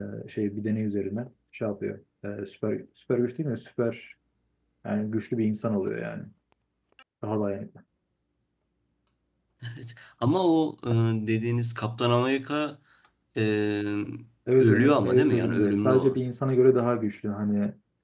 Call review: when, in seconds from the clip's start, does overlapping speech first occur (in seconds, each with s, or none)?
14.6 s